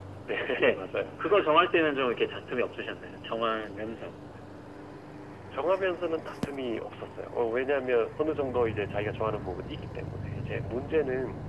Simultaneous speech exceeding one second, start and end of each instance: none

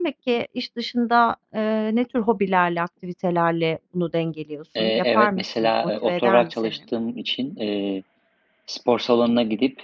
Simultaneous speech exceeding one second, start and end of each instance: 4.8-6.7

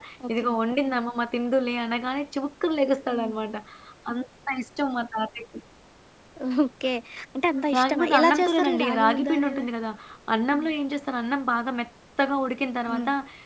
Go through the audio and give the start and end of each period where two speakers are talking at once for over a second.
7.8-9.6

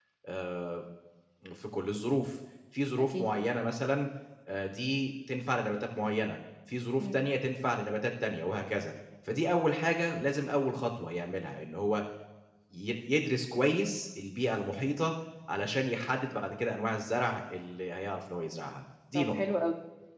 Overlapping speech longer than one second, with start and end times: none

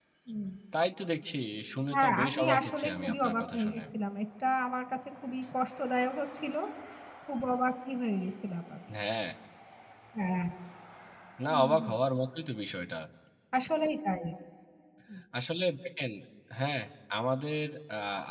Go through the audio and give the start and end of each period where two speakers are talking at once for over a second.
1.9-3.8

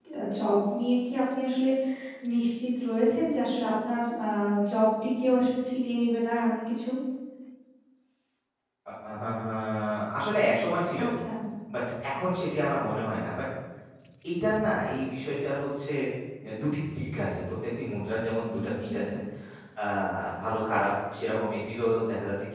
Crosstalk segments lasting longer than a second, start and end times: none

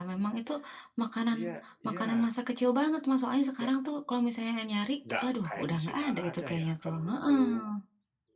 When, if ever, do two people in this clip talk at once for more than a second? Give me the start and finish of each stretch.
5.2-7.5

